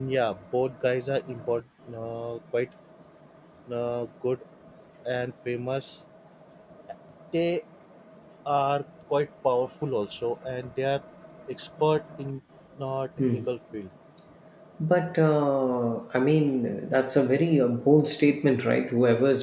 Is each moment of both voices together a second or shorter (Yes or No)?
Yes